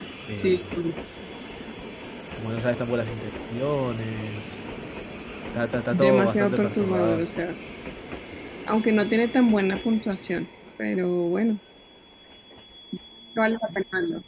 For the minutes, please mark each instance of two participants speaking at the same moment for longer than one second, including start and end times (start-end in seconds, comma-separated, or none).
5.9-7.3